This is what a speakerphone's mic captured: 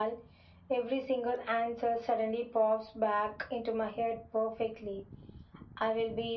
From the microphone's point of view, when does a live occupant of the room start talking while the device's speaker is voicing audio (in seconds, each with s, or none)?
none